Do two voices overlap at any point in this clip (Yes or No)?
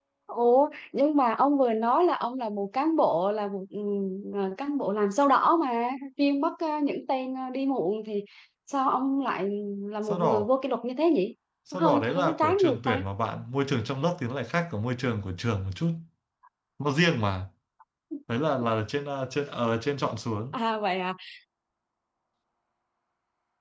Yes